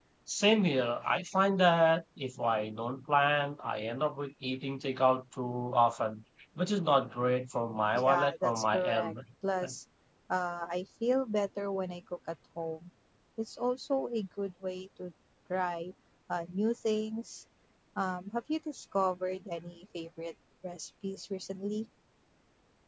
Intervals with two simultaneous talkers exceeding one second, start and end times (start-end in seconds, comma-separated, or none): 7.9-9.1